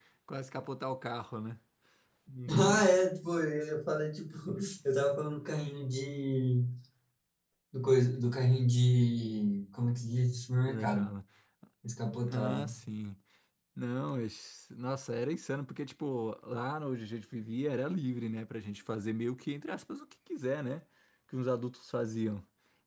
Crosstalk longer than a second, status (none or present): none